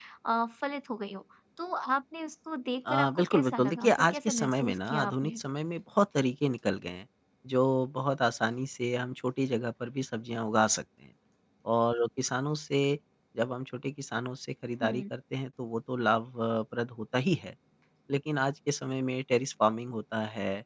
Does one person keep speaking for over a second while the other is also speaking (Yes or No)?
Yes